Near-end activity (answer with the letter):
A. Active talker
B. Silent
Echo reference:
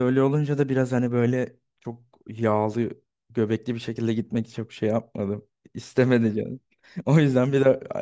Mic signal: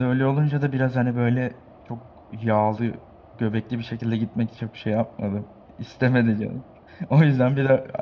B